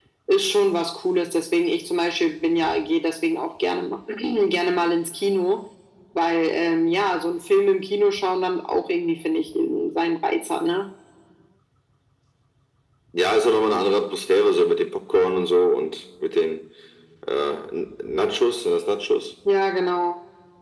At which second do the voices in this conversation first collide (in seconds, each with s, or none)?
none